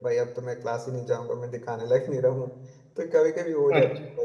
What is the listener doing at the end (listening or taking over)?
listening